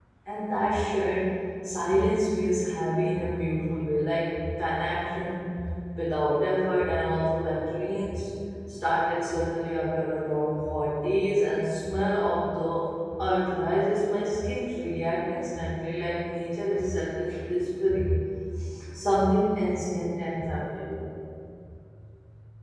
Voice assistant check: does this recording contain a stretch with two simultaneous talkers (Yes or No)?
No